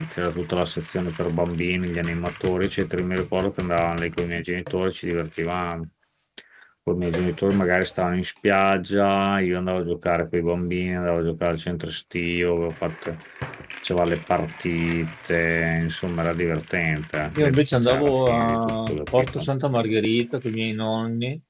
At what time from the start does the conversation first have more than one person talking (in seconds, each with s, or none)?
17.4 s